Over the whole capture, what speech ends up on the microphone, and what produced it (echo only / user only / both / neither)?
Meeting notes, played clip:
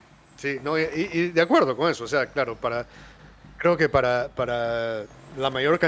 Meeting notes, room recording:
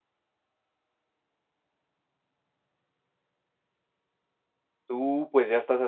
user only